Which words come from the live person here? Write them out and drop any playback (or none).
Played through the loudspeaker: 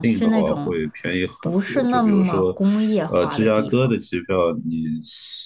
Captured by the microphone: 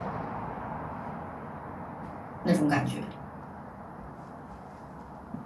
那种感觉。